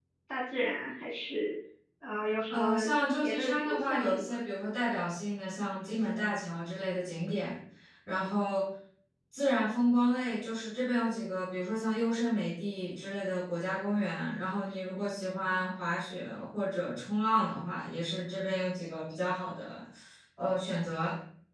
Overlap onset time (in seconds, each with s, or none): 2.5 s